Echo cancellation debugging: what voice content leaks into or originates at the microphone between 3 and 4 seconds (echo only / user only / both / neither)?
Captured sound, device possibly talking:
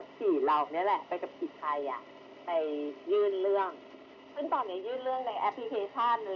echo only